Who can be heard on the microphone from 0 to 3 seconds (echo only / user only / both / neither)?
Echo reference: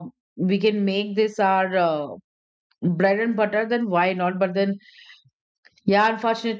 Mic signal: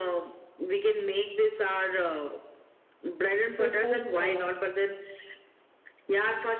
echo only